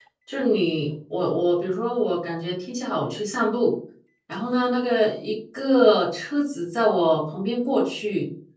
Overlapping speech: No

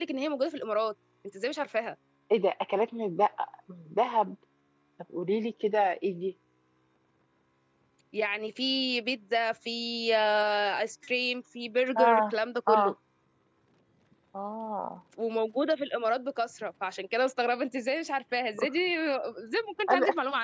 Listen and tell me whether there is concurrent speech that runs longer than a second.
No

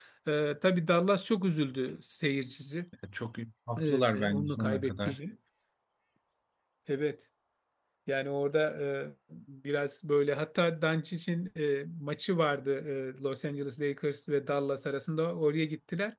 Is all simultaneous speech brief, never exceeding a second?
No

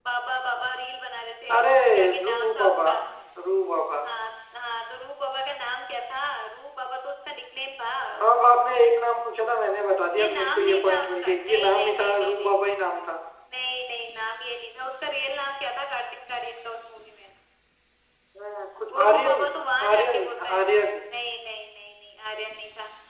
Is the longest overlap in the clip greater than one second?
Yes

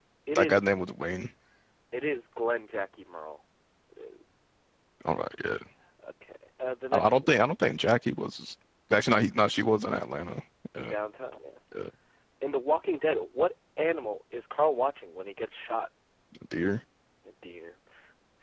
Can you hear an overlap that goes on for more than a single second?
No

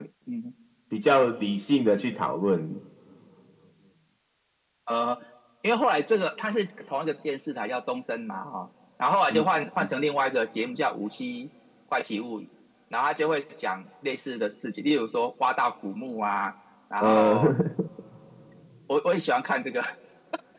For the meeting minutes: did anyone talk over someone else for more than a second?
No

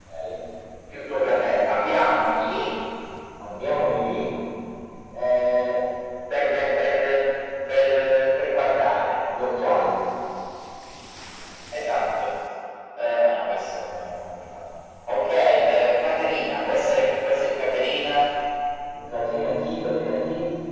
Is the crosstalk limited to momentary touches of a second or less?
Yes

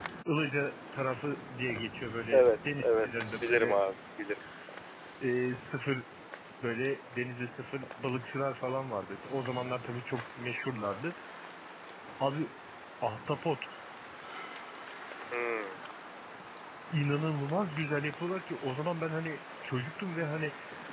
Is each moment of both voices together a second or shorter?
No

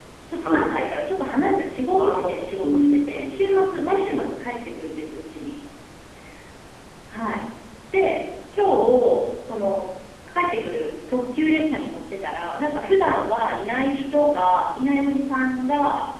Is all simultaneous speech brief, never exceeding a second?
No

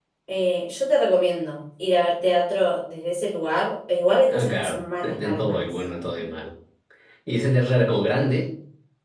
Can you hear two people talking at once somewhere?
Yes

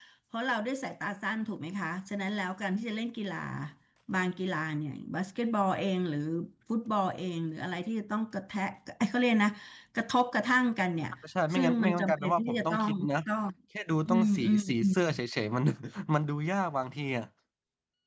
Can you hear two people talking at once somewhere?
Yes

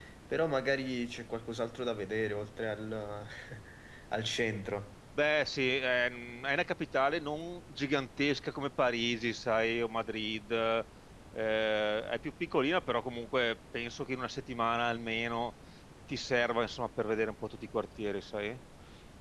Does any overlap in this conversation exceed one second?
No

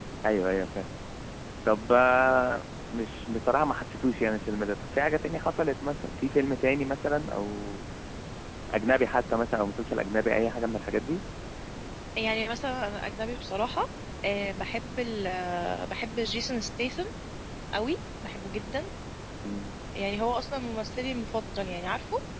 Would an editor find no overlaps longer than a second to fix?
Yes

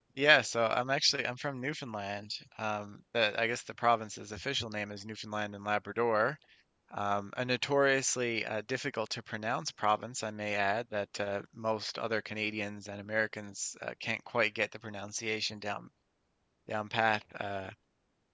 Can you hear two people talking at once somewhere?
No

